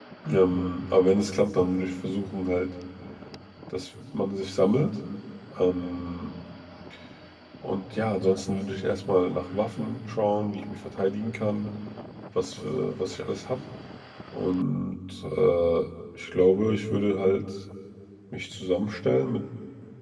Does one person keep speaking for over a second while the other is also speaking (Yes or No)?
No